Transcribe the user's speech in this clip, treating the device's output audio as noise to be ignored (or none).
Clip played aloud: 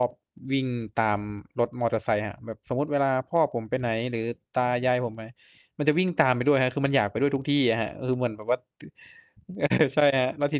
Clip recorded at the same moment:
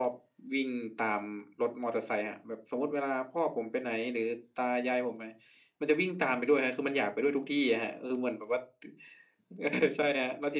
none